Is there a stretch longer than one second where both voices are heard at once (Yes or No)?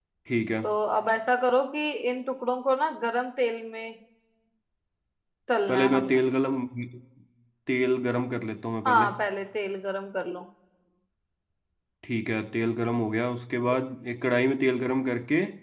No